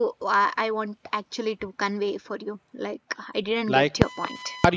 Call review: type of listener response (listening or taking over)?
taking over